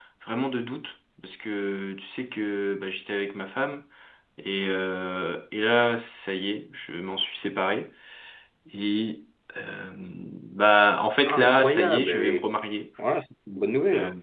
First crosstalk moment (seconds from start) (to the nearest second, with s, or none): 11 s